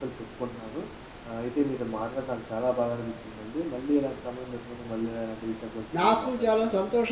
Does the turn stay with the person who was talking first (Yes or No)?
No